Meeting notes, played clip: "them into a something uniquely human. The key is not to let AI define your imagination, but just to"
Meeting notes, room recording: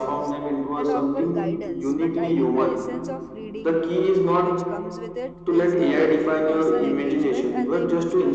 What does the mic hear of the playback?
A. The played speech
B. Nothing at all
A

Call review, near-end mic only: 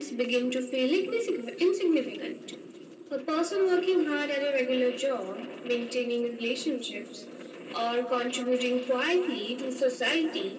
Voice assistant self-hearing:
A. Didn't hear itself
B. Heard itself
B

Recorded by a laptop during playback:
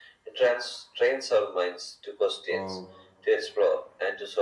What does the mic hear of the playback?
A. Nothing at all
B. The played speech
B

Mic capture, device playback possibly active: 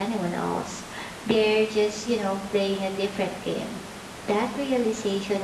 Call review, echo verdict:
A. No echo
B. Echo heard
A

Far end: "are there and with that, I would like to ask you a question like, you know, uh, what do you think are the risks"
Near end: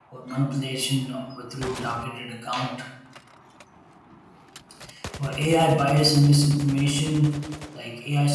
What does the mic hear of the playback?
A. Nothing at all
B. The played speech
A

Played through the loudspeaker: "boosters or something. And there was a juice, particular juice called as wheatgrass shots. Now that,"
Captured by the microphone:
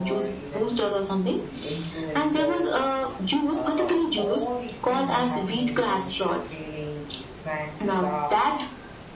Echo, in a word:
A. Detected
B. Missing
A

